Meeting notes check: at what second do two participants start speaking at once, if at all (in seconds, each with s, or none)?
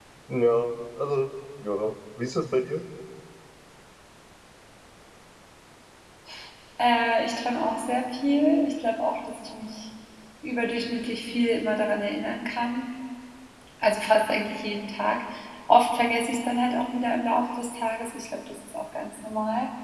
none